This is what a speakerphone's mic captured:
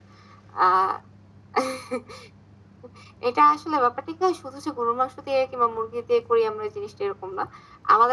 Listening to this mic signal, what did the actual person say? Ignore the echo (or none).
none